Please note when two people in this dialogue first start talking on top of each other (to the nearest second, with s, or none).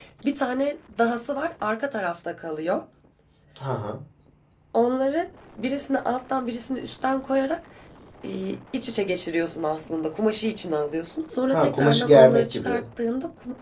12 s